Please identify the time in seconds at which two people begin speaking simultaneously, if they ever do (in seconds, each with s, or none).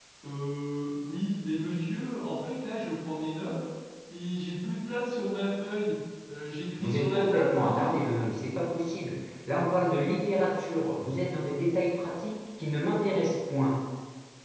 6.8 s